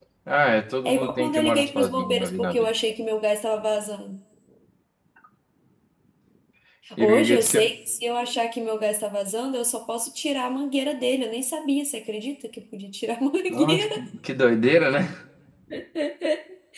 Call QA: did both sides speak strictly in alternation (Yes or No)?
No